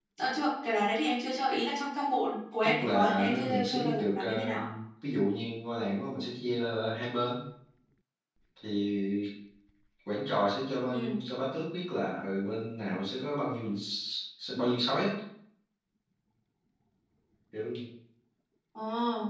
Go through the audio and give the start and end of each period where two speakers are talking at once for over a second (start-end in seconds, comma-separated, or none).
2.6-4.5